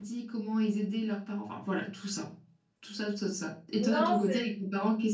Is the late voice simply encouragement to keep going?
Yes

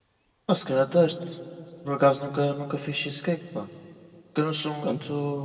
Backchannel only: Yes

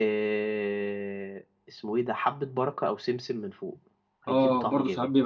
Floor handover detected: Yes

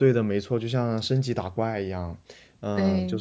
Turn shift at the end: No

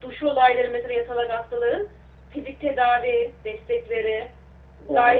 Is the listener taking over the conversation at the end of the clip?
Yes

